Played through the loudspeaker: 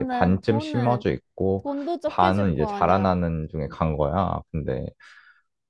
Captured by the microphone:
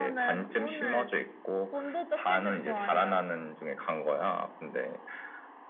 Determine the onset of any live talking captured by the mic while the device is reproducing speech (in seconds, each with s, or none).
none